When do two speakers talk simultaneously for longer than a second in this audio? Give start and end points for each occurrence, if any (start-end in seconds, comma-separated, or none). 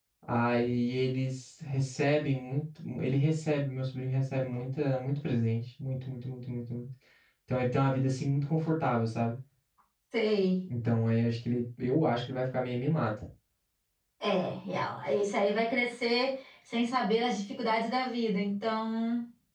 none